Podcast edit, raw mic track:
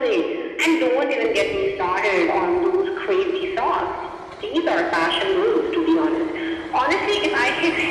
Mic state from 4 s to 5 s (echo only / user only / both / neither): echo only